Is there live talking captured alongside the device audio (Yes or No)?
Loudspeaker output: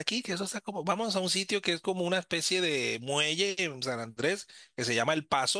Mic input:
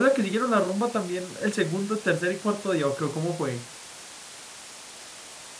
Yes